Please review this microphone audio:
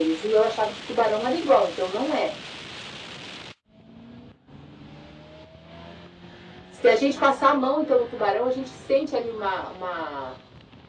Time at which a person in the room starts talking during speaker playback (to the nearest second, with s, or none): none